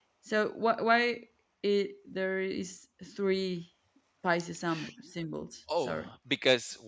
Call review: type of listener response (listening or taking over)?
taking over